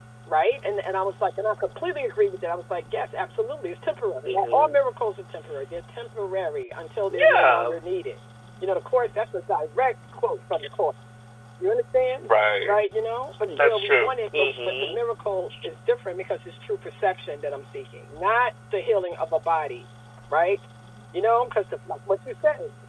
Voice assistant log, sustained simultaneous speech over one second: present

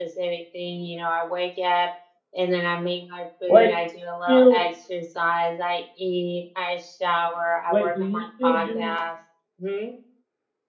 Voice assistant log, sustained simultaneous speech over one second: present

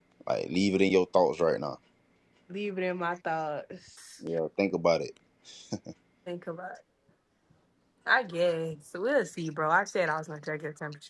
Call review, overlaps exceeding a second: none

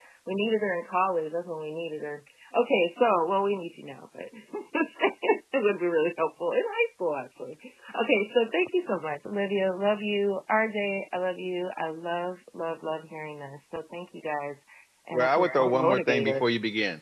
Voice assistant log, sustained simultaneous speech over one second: present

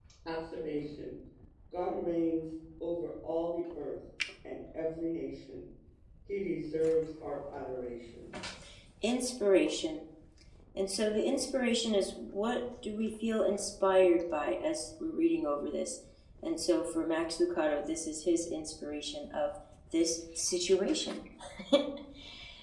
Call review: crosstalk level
none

